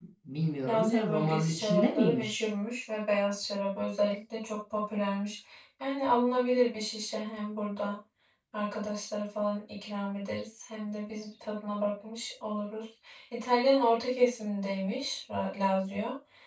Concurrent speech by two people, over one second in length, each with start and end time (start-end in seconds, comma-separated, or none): 0.6-2.4